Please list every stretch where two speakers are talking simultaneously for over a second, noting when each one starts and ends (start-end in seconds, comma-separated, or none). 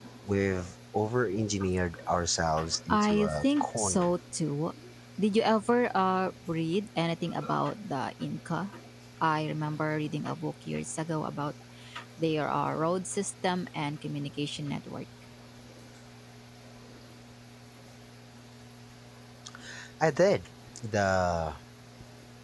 2.9-4.1